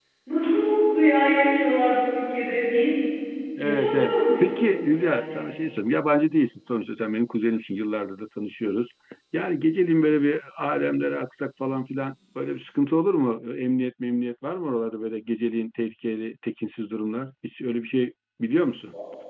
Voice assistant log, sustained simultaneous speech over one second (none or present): present